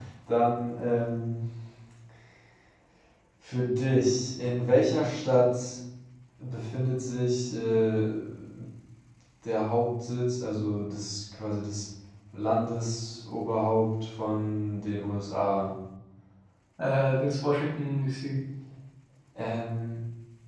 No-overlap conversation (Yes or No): Yes